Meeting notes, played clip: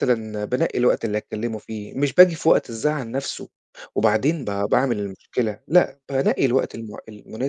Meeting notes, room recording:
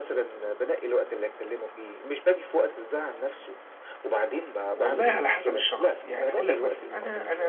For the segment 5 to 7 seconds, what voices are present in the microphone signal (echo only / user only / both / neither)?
both